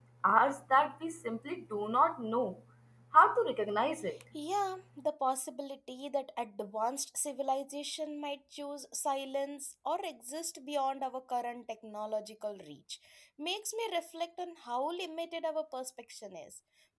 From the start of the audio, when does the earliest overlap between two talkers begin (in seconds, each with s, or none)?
none